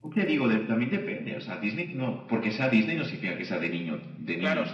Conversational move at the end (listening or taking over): taking over